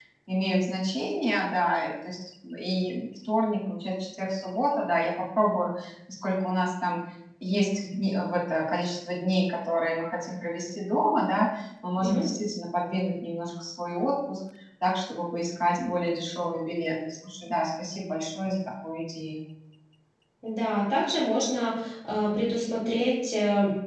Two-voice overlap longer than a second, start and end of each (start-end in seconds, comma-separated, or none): none